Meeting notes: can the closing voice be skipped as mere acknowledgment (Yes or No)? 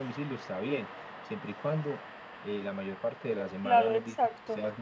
No